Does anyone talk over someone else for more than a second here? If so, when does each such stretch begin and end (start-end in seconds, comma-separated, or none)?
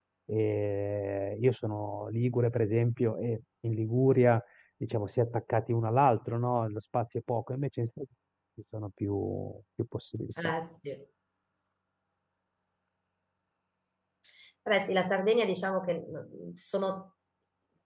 none